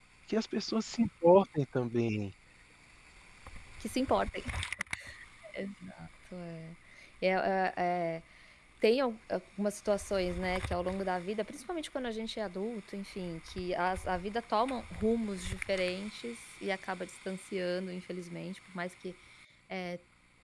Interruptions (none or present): none